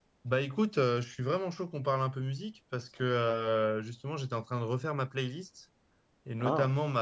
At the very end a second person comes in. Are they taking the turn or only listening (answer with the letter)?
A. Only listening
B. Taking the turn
A